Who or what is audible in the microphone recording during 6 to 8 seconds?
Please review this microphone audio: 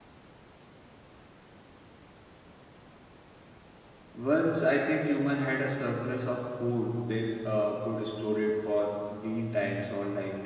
user only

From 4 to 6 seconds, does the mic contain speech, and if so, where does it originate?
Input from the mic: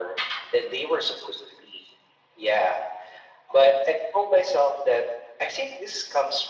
echo only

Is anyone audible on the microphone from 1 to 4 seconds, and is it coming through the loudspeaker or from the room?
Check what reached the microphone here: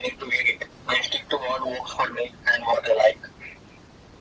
echo only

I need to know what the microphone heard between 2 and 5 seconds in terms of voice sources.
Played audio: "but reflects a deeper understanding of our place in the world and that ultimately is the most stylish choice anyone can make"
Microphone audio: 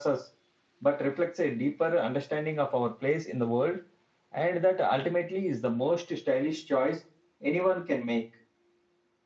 echo only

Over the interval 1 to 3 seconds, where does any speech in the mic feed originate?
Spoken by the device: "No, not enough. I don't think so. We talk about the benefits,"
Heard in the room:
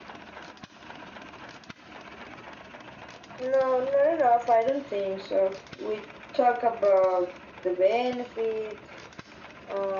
neither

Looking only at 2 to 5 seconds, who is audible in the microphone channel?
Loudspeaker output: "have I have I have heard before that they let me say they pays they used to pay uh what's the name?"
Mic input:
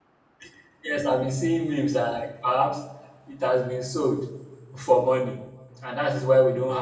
user only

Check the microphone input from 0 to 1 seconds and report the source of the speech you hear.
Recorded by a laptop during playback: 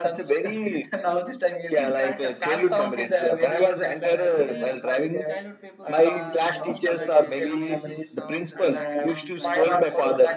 echo only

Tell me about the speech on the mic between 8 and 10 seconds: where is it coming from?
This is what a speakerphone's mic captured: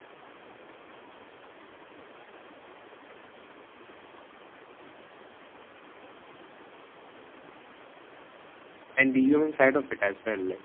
user only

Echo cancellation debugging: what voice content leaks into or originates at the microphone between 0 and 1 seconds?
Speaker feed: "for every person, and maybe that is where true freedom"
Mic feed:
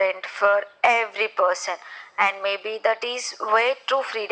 echo only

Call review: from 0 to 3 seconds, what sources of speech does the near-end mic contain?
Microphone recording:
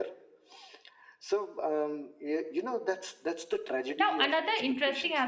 echo only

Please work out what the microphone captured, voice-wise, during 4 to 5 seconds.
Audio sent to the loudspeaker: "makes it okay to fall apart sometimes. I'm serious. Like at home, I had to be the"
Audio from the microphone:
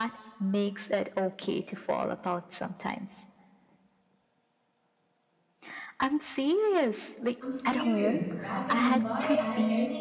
neither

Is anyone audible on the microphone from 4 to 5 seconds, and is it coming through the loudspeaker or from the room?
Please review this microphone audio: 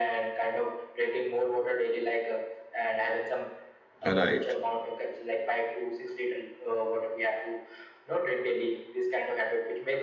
both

